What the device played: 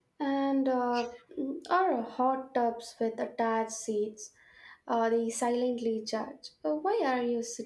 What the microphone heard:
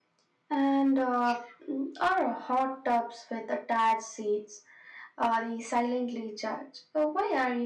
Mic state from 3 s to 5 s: echo only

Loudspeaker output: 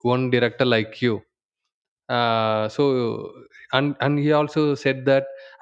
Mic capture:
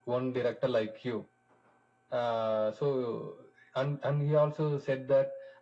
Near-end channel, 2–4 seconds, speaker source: echo only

